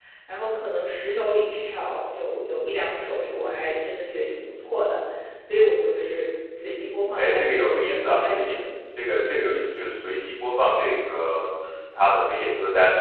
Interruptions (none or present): present